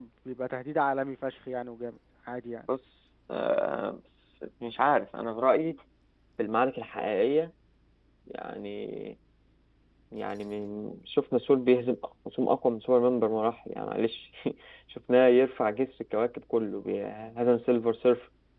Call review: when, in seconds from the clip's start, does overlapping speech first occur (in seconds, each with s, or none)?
none